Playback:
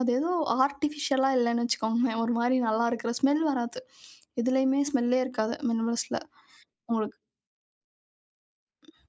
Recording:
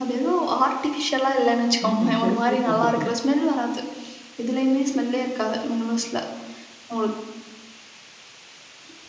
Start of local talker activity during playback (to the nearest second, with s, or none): 2 s